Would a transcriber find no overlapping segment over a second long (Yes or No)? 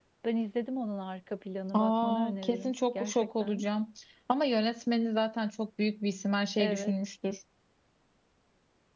No